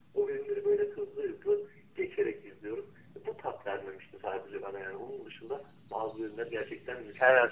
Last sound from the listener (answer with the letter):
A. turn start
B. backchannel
A